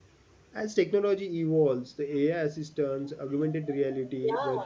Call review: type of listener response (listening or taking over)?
listening